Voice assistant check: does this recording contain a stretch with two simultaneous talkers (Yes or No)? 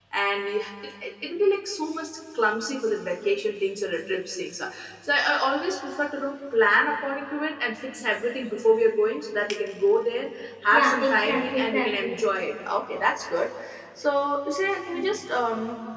Yes